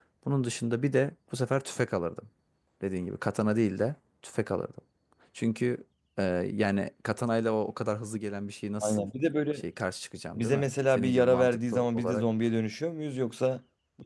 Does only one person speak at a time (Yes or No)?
No